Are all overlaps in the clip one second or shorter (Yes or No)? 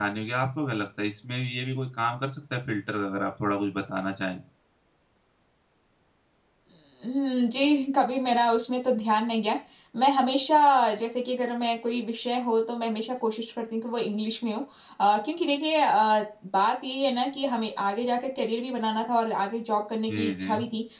Yes